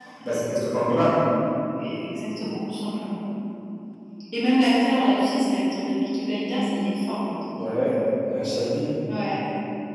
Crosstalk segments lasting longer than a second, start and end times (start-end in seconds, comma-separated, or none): none